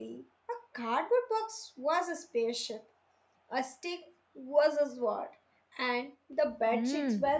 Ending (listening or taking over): taking over